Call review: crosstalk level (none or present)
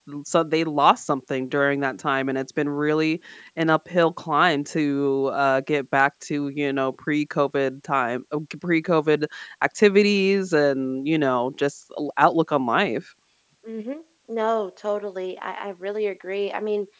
none